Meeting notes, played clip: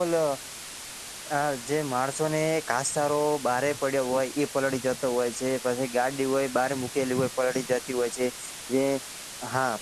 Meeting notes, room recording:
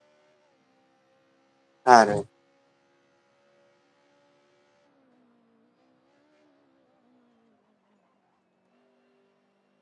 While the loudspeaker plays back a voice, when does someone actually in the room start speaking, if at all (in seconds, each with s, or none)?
1.8 s